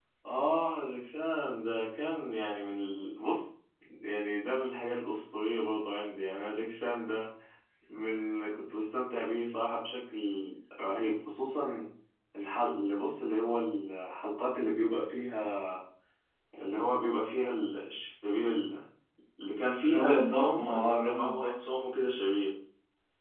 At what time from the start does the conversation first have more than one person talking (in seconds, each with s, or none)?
19.8 s